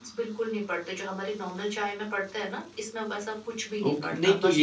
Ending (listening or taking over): taking over